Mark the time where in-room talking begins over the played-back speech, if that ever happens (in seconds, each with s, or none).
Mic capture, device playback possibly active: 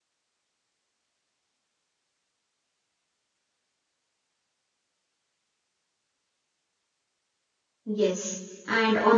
7.9 s